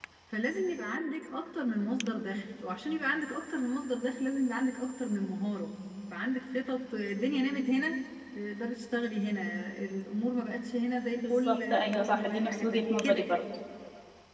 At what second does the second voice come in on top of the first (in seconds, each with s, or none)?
11.2 s